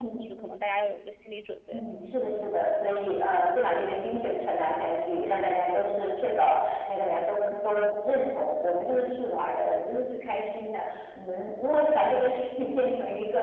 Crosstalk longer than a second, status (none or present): none